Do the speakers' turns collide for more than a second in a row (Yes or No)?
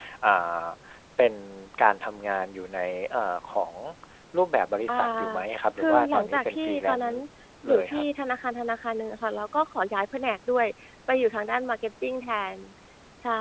Yes